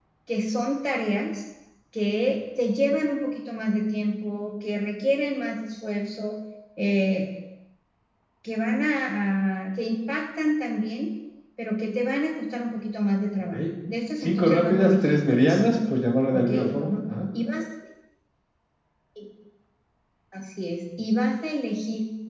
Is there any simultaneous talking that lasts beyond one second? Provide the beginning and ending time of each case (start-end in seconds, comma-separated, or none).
14.2-15.6